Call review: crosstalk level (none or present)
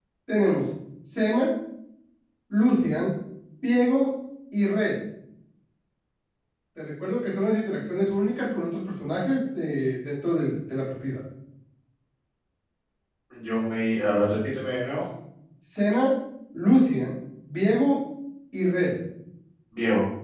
none